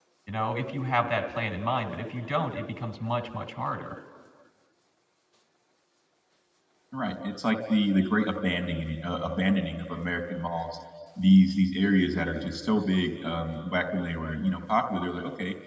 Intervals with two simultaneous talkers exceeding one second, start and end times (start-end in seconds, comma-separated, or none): none